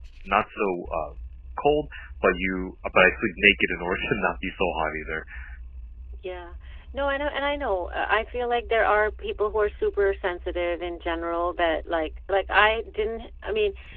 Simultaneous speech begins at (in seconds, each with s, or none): none